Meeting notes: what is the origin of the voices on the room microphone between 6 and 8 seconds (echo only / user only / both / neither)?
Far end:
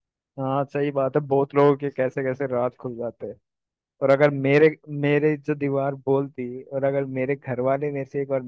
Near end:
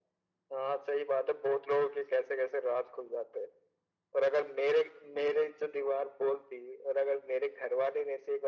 echo only